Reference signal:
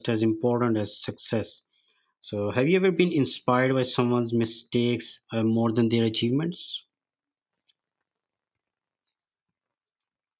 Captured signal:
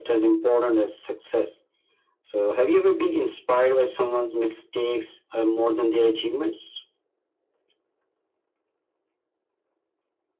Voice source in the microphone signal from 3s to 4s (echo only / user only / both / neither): echo only